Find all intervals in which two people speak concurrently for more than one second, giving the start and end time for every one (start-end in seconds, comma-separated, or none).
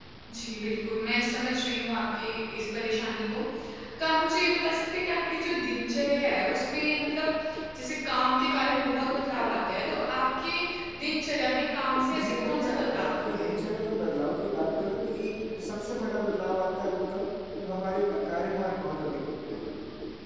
12.1-13.5